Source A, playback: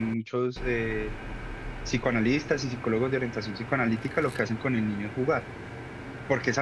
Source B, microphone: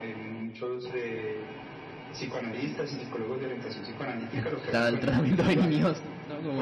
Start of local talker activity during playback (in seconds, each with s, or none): 4.3 s